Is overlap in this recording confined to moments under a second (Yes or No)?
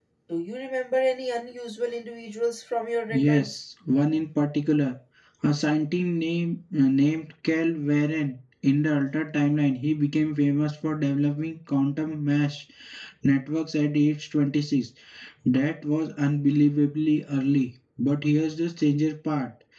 Yes